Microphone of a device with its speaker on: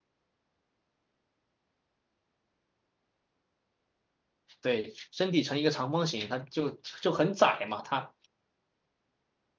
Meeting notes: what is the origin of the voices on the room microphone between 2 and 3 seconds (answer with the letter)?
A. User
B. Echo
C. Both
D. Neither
D